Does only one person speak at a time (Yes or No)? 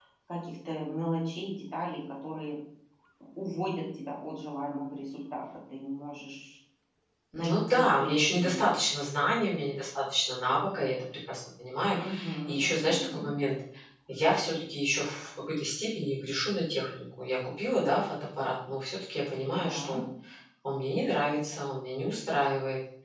No